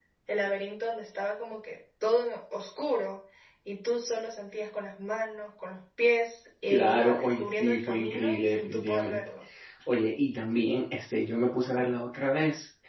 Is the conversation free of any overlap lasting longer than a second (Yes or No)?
No